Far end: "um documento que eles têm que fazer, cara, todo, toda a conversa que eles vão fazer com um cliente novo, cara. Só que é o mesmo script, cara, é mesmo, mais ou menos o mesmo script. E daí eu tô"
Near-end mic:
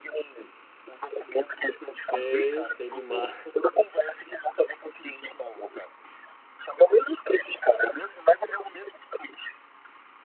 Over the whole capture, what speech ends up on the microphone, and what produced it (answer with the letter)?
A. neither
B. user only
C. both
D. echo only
C